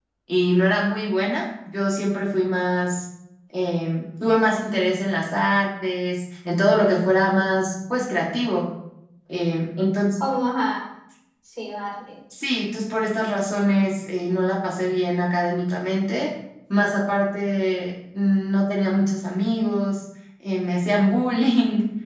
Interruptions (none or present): none